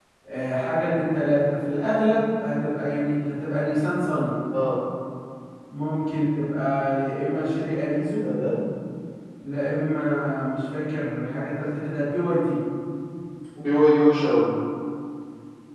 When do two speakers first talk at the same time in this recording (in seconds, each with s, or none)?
none